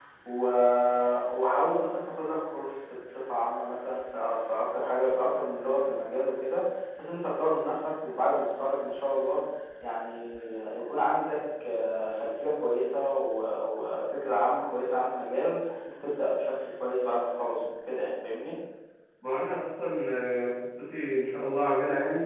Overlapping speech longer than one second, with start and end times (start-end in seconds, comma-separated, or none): none